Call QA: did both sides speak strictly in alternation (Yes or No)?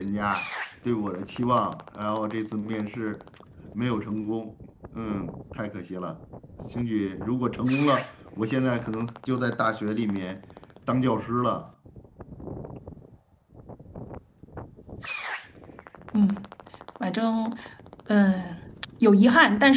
Yes